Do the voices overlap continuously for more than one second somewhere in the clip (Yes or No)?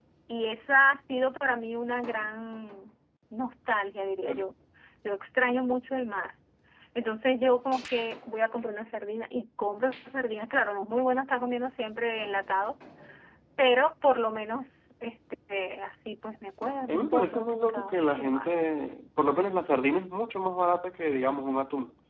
Yes